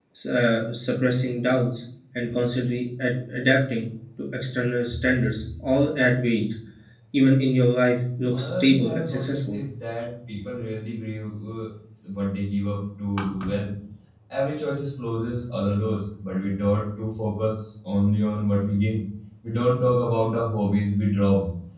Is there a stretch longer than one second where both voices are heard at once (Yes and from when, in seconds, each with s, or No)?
Yes, from 8.3 s